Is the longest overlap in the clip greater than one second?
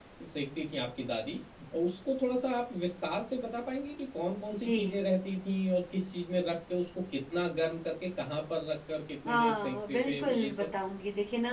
Yes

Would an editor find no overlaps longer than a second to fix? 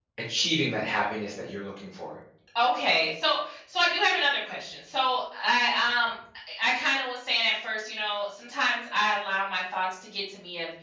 Yes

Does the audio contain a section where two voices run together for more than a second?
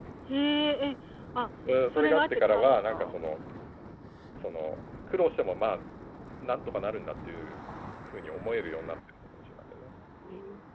Yes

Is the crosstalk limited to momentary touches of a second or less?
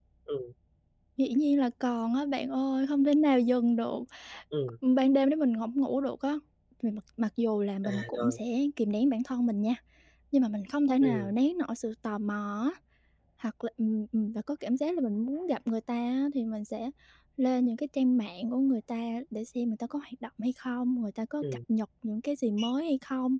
Yes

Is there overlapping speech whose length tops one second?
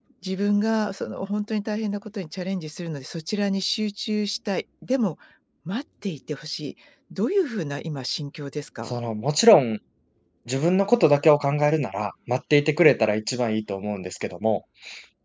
No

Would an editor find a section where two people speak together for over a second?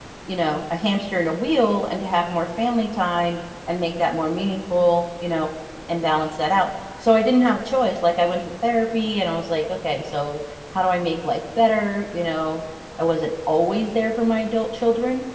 No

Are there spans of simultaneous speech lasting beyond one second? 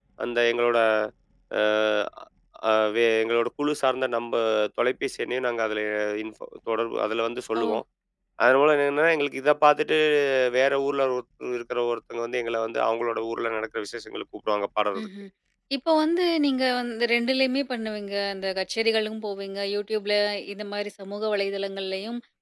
No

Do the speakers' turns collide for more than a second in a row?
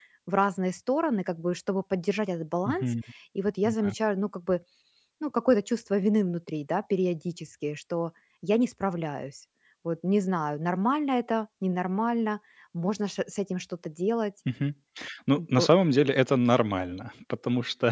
No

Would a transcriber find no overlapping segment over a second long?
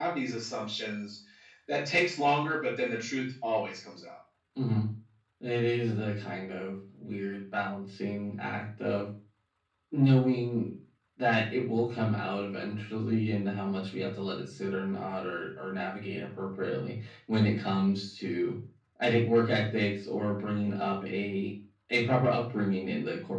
Yes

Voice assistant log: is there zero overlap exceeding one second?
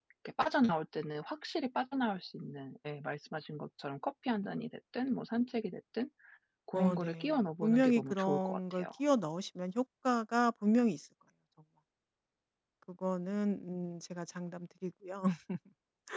No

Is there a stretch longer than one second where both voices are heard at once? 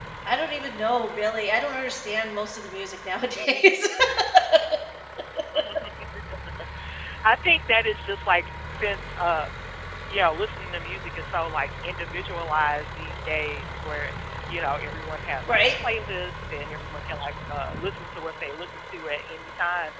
No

